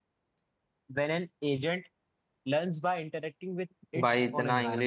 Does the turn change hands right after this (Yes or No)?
Yes